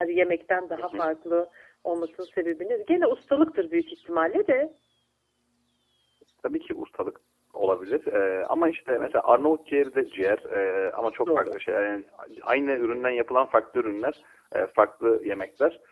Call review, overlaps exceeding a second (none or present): none